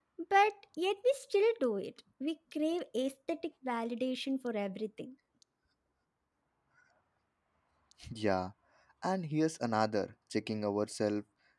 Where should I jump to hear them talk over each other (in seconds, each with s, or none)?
none